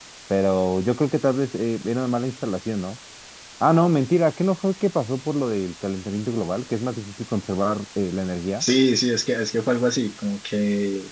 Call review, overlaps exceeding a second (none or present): none